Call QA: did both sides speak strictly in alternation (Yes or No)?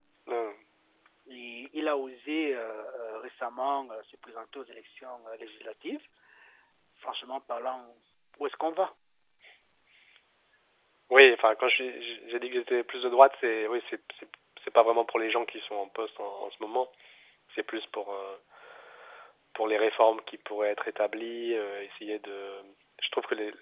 Yes